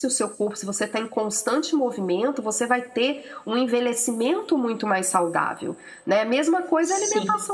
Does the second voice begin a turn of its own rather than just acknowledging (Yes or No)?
No